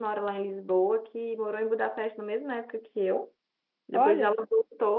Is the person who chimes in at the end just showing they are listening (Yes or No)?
Yes